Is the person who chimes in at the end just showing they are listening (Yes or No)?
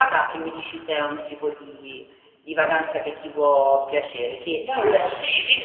No